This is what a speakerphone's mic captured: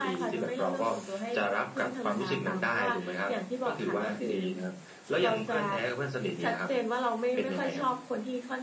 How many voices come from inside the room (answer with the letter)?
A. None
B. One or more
A